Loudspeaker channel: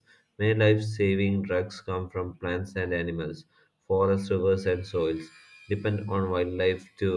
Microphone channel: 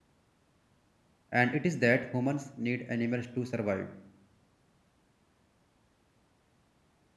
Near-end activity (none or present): present